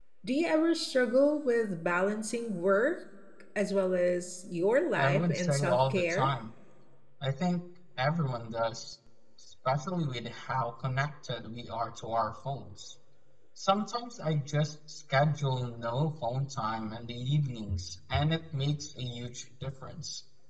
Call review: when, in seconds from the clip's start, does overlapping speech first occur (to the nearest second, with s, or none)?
5 s